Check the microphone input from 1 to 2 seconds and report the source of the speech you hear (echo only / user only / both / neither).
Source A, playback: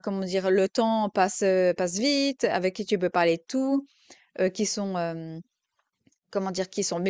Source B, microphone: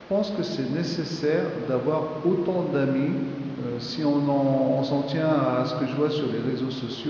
user only